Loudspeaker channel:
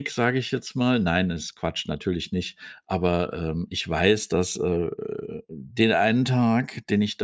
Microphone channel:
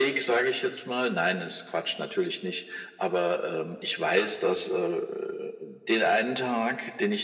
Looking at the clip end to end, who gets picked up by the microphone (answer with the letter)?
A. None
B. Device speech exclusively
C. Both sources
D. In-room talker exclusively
B